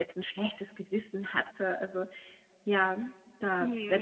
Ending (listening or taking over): taking over